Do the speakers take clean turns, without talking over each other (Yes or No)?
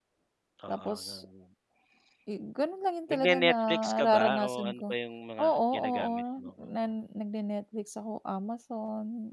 No